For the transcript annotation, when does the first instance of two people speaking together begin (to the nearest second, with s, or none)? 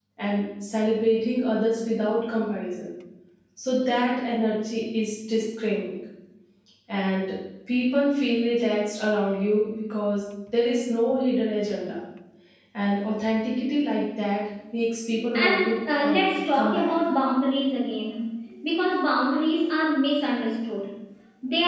15 s